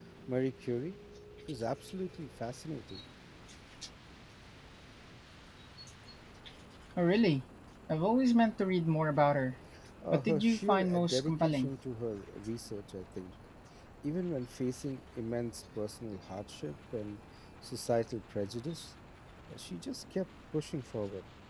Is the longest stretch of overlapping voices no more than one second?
No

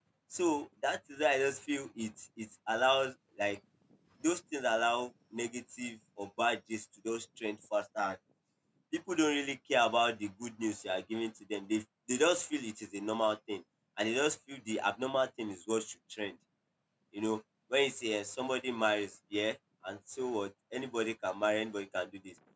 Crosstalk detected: No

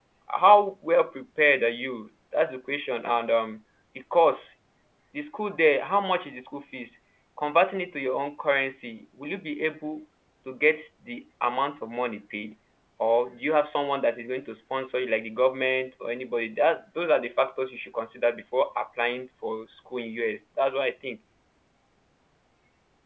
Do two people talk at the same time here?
No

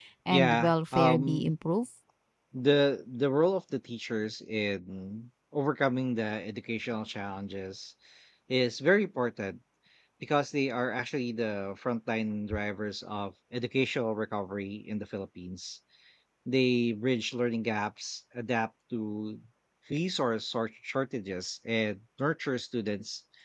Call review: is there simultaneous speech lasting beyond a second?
Yes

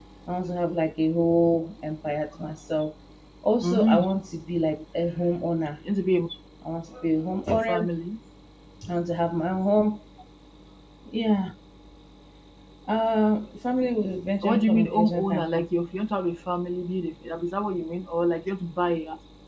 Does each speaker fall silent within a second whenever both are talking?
No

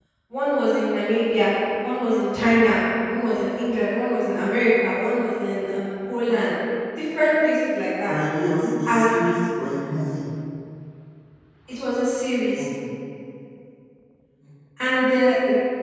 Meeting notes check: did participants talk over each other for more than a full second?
No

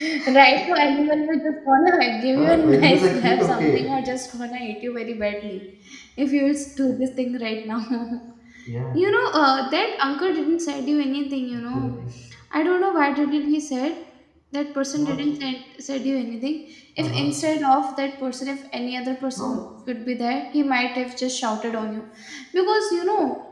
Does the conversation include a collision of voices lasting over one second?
Yes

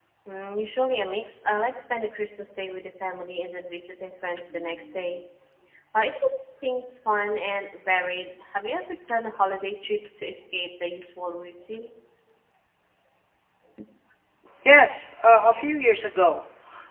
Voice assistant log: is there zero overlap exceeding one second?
Yes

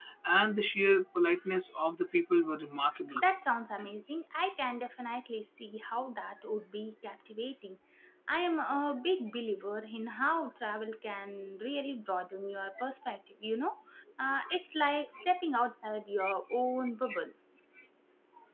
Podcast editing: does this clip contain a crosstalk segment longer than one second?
No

